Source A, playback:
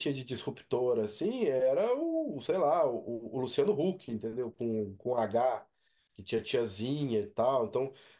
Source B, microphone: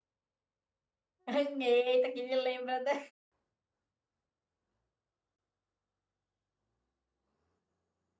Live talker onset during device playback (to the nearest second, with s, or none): 1 s